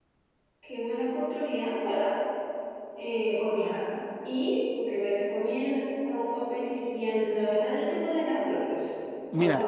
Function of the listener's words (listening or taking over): taking over